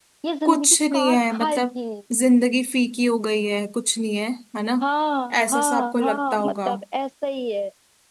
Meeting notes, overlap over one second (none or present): present